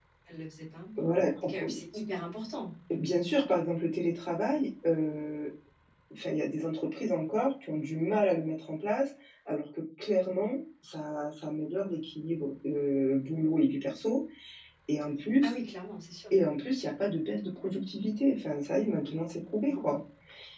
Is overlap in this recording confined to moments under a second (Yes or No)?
Yes